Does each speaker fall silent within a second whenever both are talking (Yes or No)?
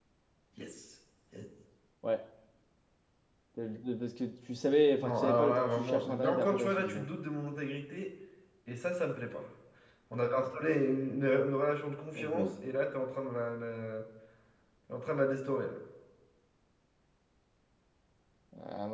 No